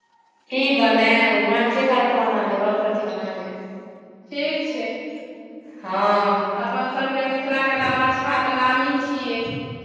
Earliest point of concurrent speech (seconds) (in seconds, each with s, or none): none